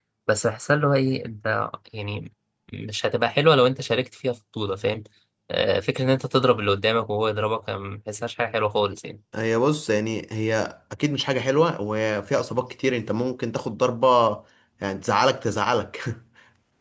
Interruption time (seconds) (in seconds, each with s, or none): none